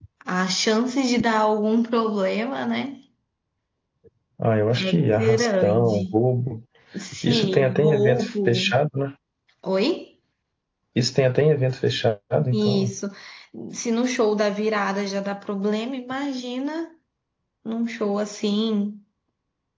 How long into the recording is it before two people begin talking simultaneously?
4.8 s

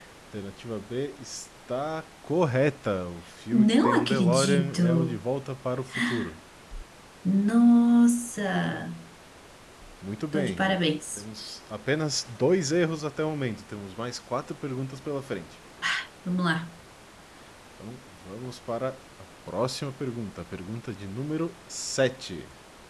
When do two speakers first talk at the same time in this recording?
3.5 s

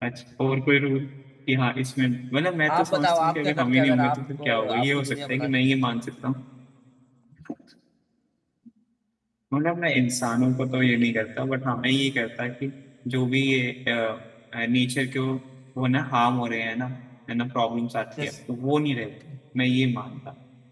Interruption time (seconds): 2.8 s

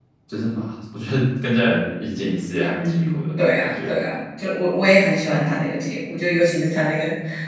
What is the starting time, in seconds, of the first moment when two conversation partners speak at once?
2.7 s

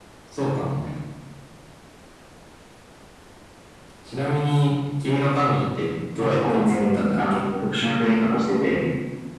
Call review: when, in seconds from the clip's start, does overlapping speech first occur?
6.2 s

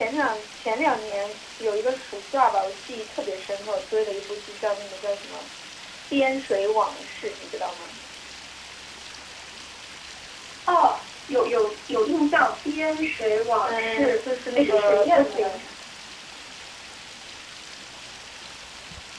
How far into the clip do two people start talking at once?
13.6 s

